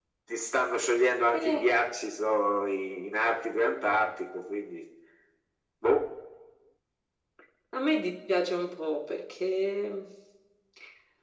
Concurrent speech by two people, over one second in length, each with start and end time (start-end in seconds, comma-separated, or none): none